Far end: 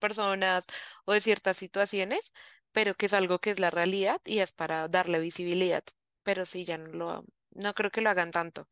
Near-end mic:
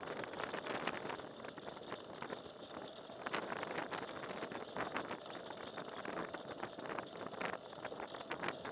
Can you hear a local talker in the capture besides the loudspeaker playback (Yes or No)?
No